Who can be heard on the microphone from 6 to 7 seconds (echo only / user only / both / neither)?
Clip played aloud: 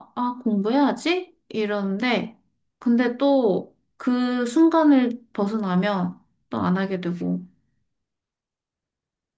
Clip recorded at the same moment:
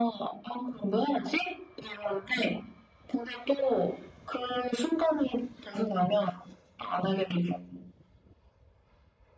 echo only